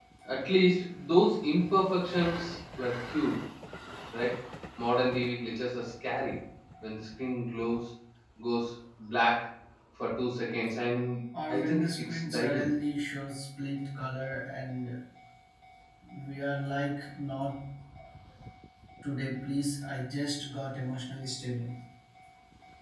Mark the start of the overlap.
11.3 s

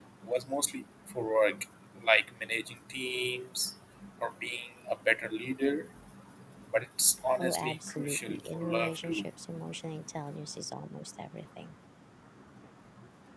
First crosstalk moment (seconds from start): 7.4 s

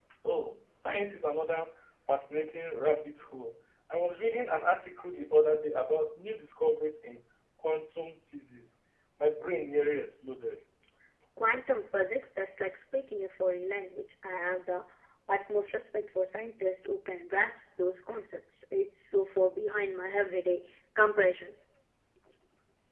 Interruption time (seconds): none

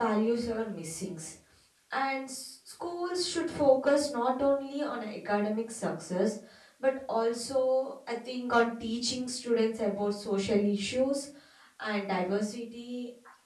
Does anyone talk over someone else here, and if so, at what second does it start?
none

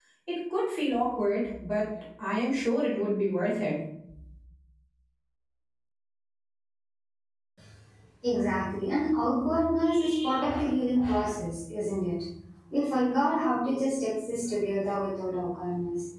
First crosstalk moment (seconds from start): none

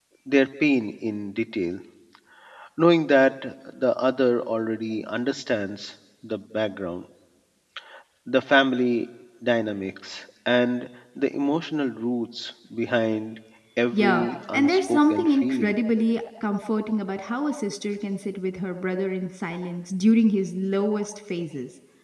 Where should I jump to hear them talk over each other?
13.9 s

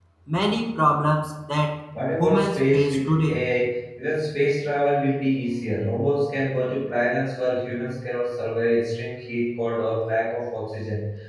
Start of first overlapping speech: 2.2 s

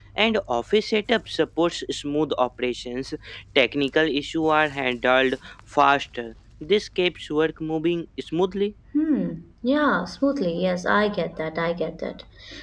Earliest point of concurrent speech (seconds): none

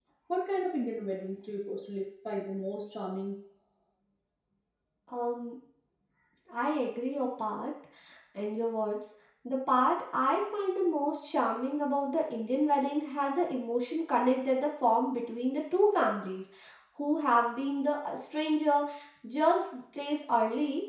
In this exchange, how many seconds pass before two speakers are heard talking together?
none

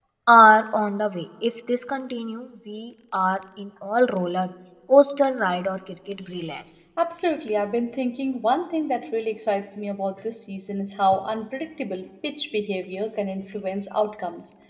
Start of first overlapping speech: none

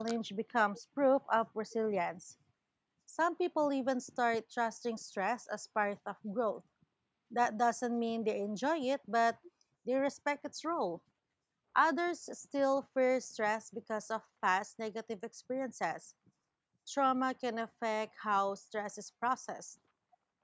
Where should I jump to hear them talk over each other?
none

